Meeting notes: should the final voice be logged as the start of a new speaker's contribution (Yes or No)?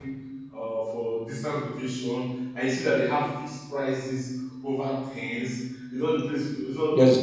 No